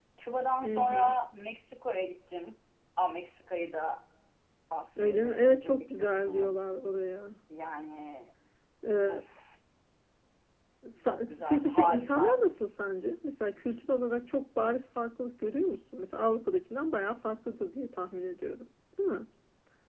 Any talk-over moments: Yes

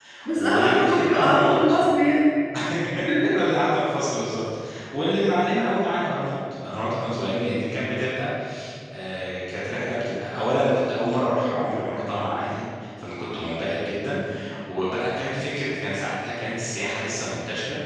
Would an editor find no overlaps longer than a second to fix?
No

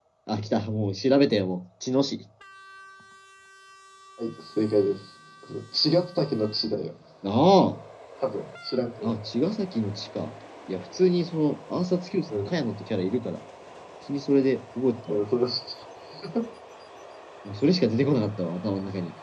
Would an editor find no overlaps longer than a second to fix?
Yes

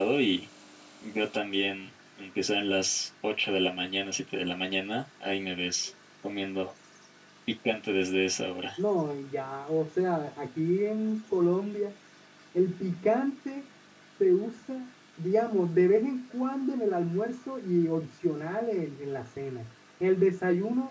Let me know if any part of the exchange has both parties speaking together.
No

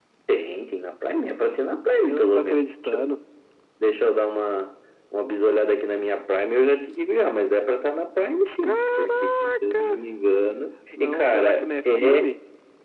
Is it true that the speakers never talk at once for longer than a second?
No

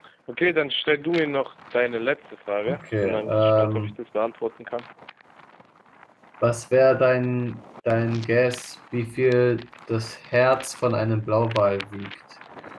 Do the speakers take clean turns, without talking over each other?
No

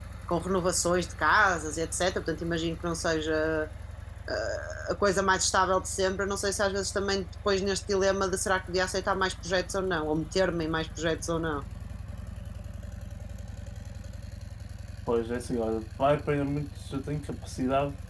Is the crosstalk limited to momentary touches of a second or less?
Yes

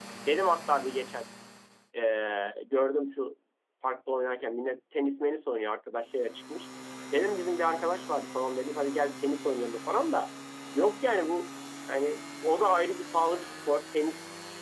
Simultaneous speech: No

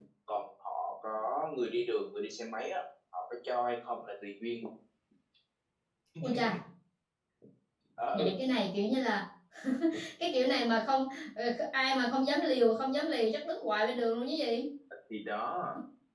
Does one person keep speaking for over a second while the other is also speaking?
No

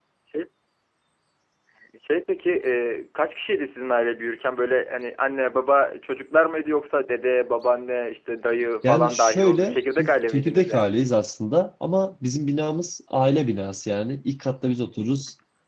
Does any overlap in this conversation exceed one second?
Yes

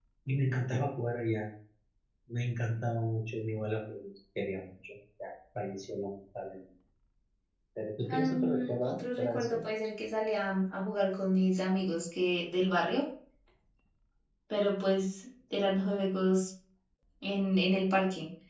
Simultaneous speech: Yes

